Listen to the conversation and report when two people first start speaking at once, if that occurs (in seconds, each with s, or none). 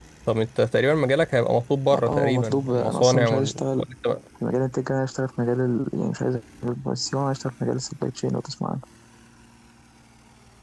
1.9 s